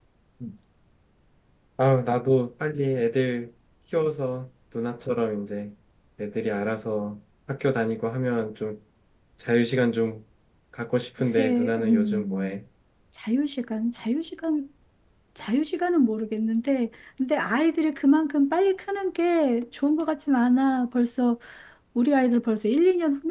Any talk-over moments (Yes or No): Yes